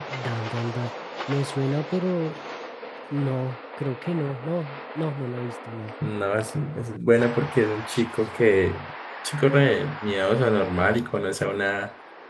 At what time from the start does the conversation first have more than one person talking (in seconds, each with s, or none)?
none